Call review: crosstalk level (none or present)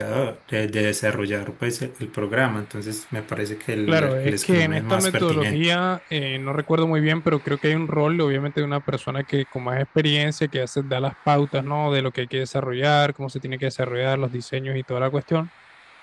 present